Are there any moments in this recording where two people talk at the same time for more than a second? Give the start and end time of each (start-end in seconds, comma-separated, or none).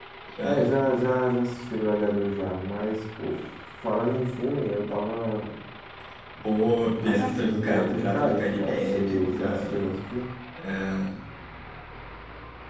7.0-9.9